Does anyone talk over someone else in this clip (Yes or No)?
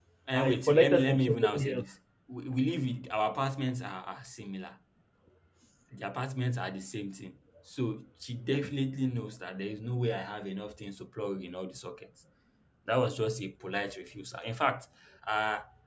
Yes